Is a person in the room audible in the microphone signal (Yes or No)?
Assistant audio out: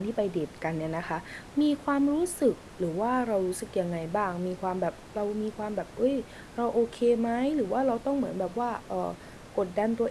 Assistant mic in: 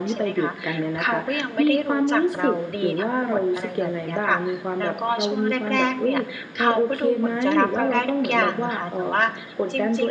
Yes